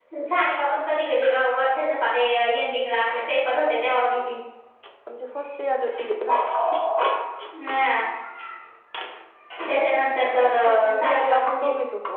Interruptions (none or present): present